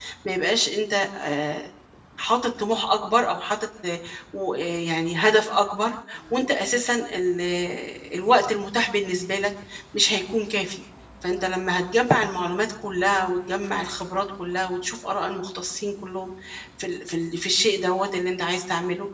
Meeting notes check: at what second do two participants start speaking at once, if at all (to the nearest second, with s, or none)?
none